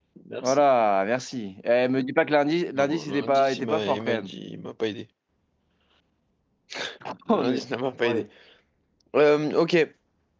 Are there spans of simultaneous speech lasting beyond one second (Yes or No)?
Yes